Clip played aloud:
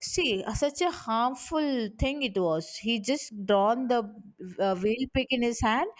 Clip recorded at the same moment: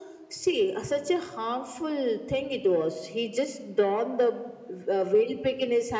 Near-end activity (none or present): none